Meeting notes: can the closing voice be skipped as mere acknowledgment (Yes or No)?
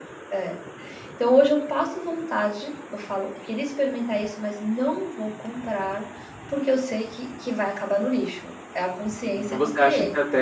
No